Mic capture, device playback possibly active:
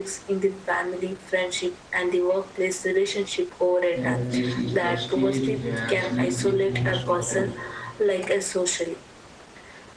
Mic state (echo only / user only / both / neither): both